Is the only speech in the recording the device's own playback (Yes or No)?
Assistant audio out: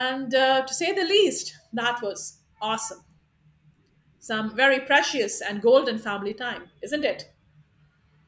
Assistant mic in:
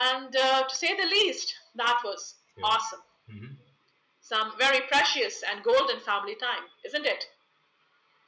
No